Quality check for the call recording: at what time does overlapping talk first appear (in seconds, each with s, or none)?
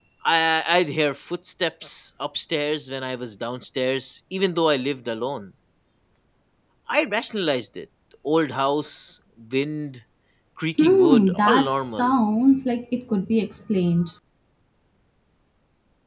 10.8 s